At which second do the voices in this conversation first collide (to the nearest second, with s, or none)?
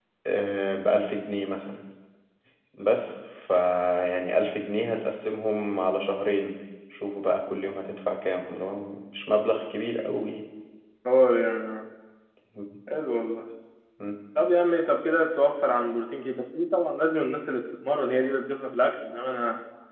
none